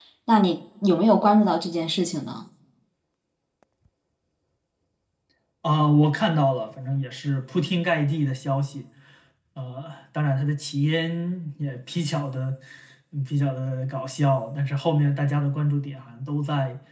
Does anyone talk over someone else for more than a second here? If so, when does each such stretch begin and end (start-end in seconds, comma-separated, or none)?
none